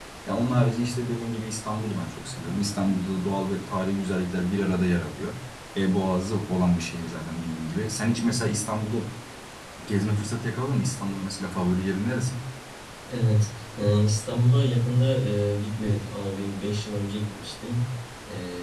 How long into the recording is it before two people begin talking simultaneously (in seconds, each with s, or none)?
none